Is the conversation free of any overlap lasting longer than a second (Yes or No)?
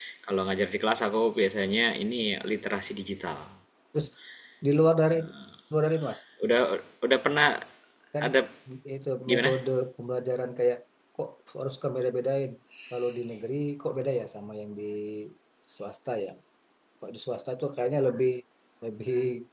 Yes